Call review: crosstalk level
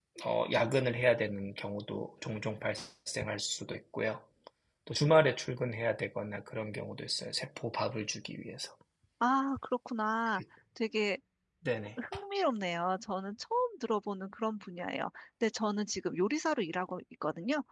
none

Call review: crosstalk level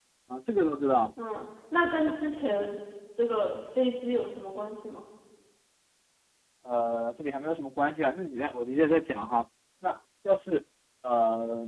none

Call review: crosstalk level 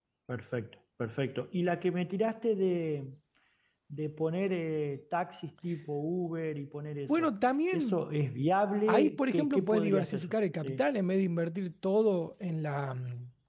present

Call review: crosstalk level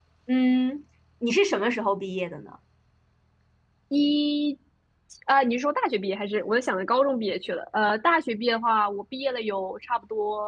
none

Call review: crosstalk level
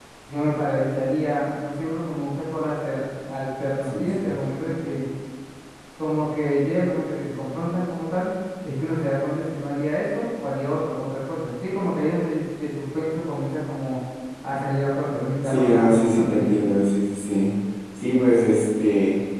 present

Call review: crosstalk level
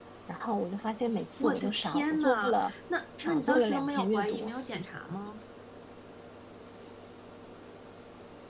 present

